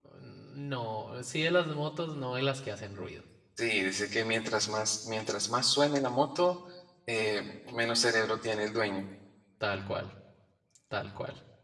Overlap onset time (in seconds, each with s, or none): none